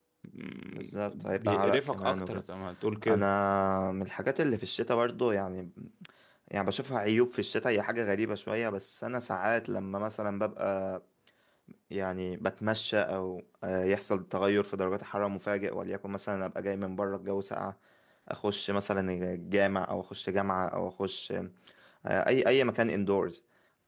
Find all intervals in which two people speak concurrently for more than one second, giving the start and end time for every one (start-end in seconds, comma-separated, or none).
0.7-2.4